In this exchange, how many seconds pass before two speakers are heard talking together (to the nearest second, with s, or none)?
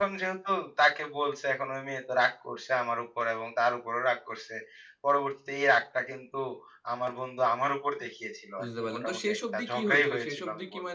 9 s